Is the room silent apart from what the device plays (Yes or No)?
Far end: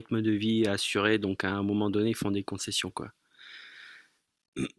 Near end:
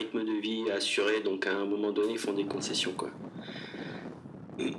Yes